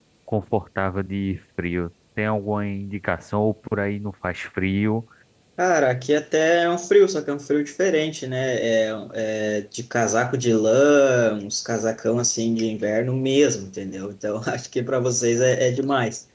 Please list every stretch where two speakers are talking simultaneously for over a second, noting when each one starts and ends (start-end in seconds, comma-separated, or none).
none